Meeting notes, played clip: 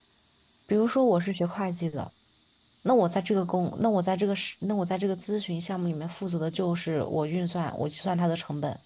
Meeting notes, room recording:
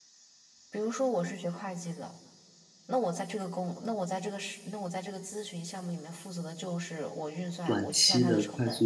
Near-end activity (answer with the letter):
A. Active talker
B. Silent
A